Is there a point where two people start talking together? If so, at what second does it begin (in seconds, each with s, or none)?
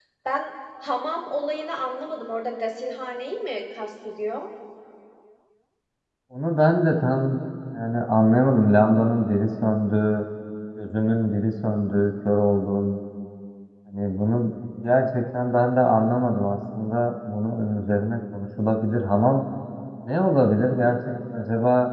none